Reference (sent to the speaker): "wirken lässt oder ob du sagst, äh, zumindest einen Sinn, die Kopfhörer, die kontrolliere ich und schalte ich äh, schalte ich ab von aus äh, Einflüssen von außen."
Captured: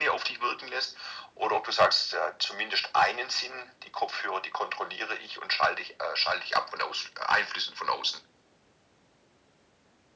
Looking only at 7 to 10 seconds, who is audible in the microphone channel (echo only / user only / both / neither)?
echo only